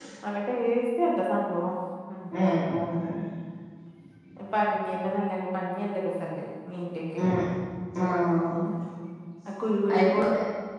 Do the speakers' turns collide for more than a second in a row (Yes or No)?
No